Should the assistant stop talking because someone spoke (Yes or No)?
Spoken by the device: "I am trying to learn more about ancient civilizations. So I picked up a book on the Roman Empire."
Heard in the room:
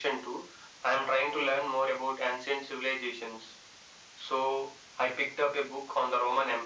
No